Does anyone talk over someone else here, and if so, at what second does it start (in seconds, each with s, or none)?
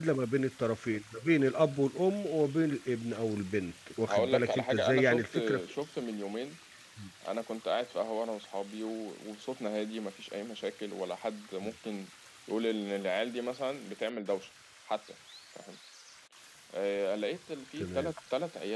4.1 s